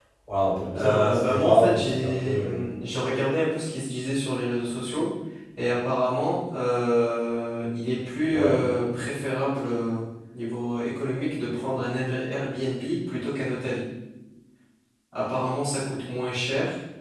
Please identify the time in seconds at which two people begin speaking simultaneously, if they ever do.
0.7 s

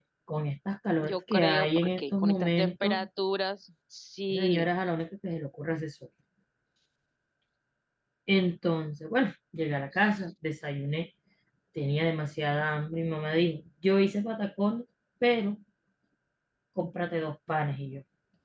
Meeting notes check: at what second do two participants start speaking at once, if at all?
1.0 s

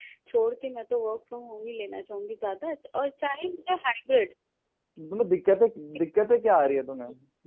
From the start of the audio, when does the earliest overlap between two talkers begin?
none

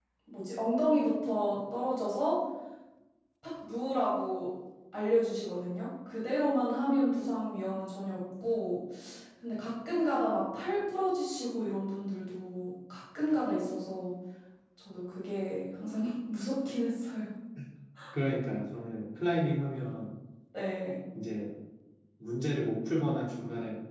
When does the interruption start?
none

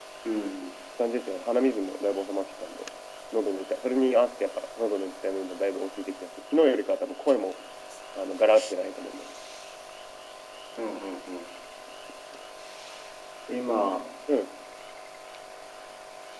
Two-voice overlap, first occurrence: none

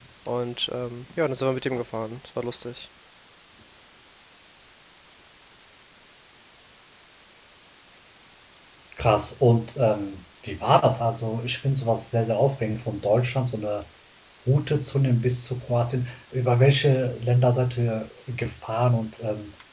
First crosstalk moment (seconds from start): none

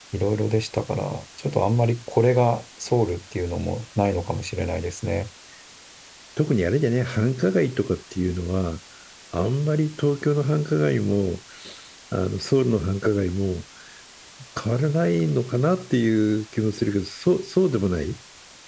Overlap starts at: none

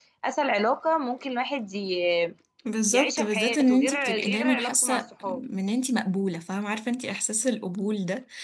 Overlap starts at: 2.9 s

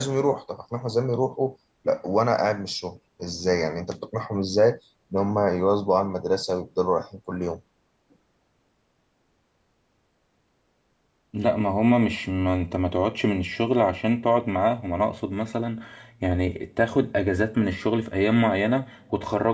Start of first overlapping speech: none

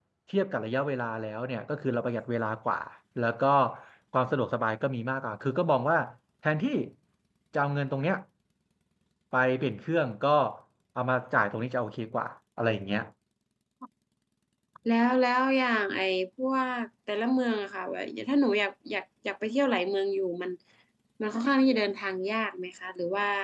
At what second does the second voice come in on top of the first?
none

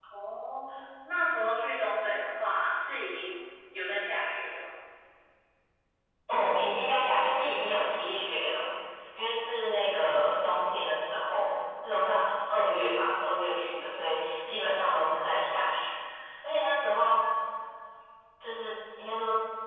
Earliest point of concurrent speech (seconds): none

